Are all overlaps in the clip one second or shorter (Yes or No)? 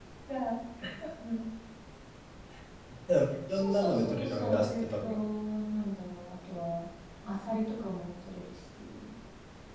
No